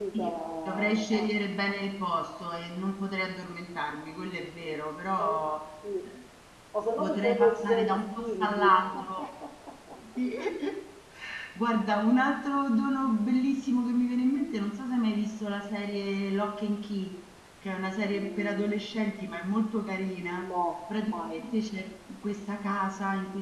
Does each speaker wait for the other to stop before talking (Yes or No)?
No